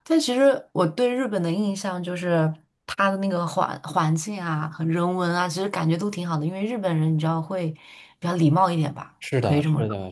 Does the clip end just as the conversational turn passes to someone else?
Yes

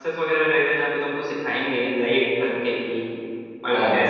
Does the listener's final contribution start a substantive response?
No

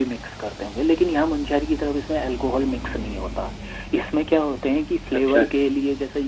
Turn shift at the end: No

